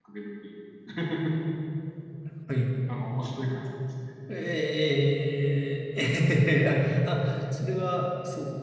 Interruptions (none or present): none